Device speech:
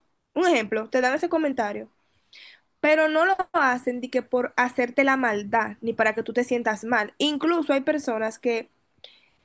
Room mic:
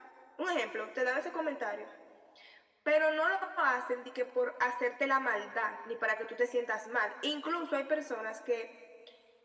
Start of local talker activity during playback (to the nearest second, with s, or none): none